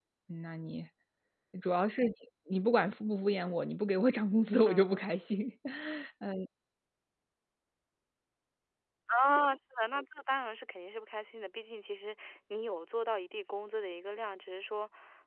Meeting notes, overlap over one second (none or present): none